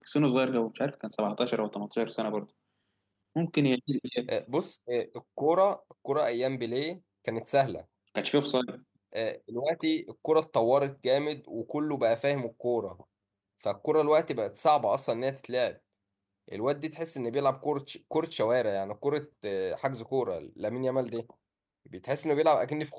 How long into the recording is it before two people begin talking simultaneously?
none

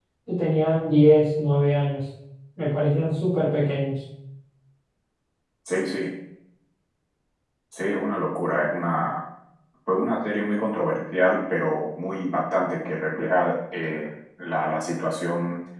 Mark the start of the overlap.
none

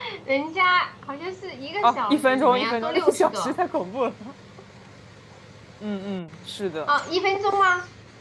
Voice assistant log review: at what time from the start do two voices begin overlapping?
1.8 s

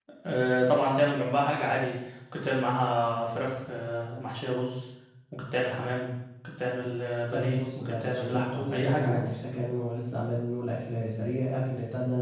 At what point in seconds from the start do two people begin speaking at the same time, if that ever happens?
7.3 s

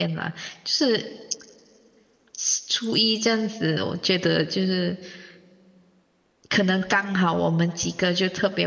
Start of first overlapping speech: none

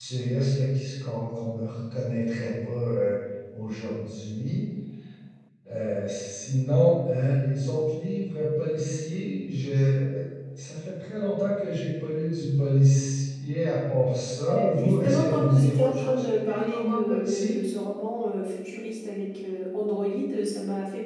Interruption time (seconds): 14.4 s

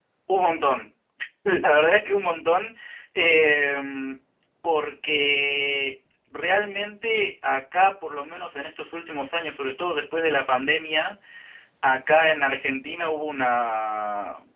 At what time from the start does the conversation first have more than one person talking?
none

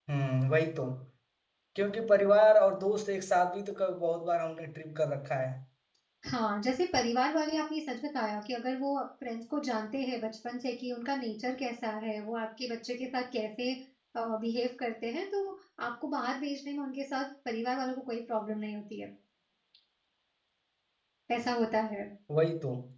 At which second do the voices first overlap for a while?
none

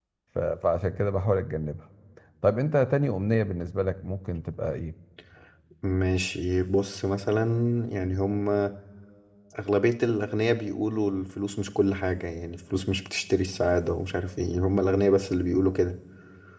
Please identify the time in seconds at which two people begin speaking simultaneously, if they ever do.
none

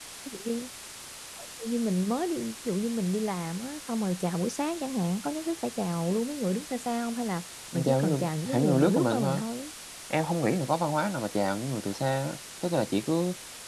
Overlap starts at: 7.7 s

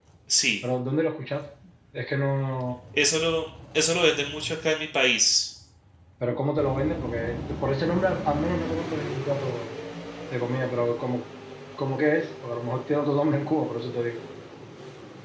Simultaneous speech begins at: none

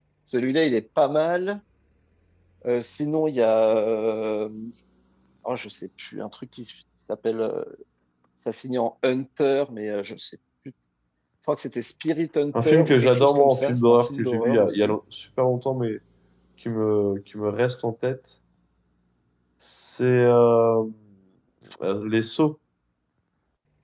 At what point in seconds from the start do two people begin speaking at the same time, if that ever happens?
12.5 s

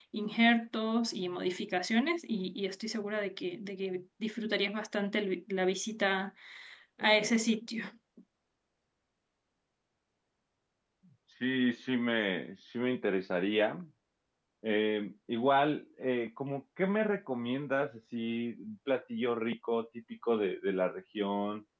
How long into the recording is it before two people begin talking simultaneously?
none

